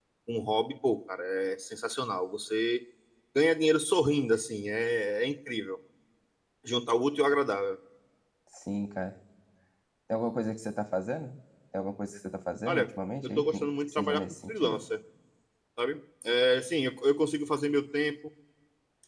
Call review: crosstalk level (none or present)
present